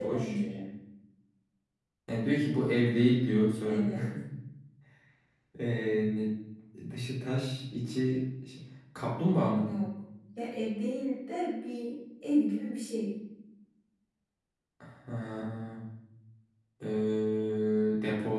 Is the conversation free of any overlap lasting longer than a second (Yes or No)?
Yes